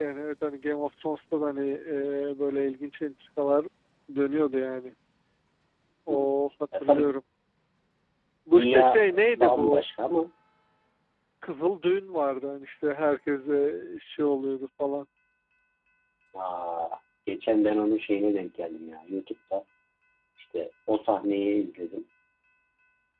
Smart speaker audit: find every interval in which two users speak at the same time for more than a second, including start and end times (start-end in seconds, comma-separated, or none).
8.5-9.8